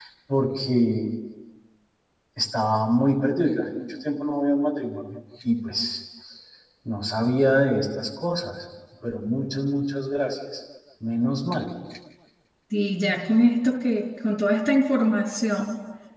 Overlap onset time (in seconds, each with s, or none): none